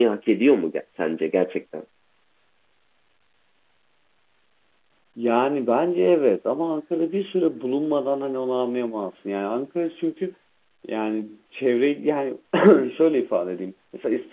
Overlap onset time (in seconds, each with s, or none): none